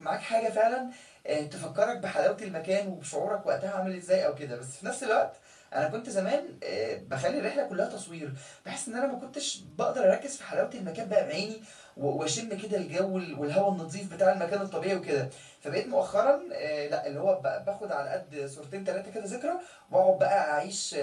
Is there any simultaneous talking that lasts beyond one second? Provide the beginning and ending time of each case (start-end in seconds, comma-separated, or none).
none